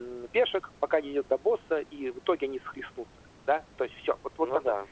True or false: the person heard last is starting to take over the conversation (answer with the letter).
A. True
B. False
B